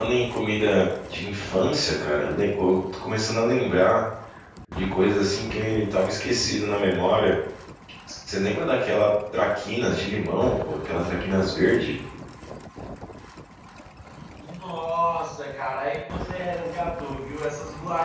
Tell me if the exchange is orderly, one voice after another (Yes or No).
Yes